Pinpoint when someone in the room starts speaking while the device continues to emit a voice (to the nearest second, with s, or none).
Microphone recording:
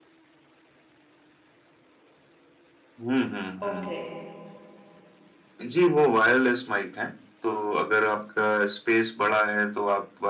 4 s